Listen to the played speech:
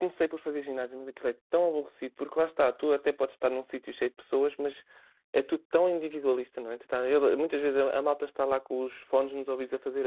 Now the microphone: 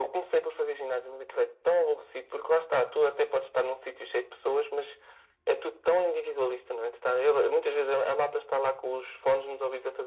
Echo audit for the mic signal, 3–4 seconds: echo only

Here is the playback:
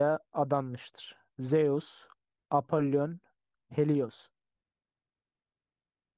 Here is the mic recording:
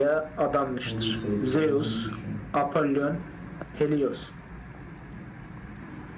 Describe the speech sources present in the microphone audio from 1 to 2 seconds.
both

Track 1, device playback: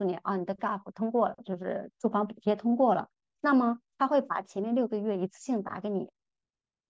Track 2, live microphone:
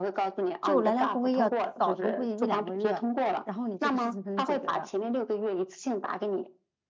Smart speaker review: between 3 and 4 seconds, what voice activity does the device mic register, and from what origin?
both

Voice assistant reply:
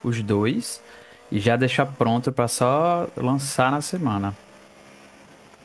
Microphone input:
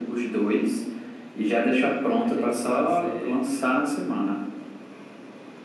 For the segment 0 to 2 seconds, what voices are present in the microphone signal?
echo only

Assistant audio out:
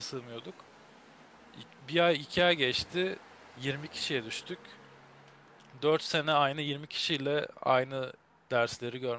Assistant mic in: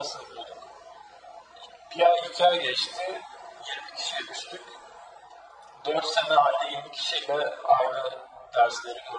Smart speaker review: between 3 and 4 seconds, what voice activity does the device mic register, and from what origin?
echo only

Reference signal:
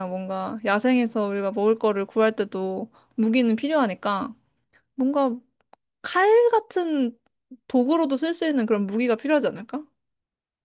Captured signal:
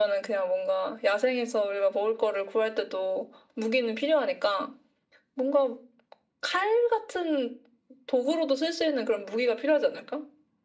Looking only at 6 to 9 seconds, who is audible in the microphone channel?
echo only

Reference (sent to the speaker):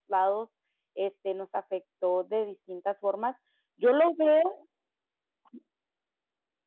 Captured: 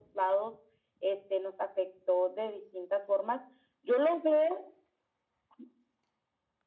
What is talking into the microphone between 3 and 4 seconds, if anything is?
echo only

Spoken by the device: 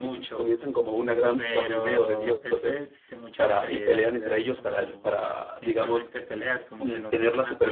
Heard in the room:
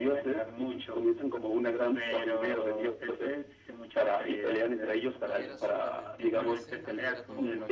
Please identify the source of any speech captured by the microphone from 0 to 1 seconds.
echo only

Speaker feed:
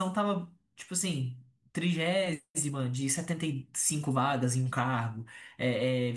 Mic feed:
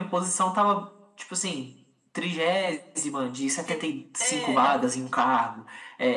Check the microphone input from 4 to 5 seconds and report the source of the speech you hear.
both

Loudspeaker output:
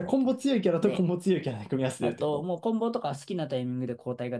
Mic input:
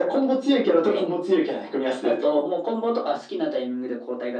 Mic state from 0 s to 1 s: echo only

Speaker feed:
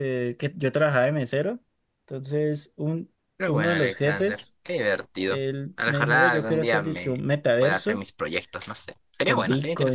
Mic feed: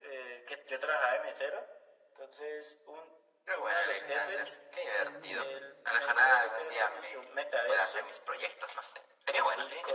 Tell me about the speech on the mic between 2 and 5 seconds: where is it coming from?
both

